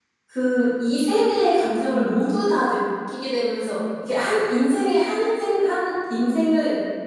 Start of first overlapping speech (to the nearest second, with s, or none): none